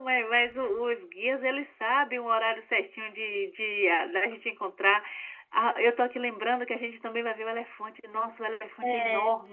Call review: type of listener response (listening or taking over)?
listening